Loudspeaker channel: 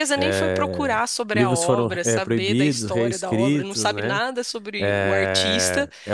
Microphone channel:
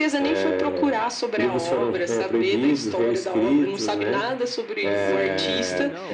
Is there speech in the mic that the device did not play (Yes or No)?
Yes